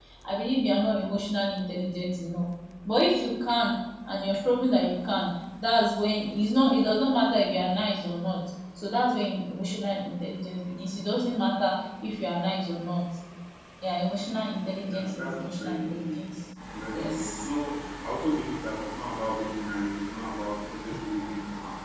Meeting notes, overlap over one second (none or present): present